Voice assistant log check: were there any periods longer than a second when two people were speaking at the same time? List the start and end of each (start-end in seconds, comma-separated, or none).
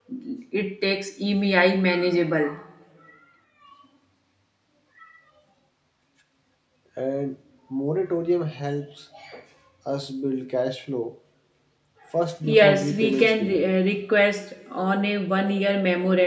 12.4-13.7